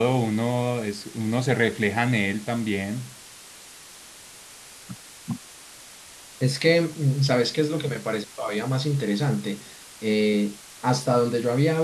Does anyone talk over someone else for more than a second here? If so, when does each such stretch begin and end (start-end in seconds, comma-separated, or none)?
none